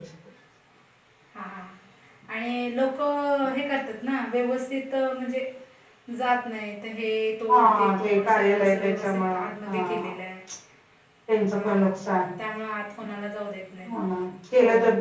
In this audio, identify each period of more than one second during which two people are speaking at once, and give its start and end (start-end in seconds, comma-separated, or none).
7.5-10.1